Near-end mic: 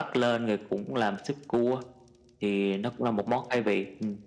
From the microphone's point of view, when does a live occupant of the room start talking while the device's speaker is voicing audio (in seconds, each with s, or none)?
none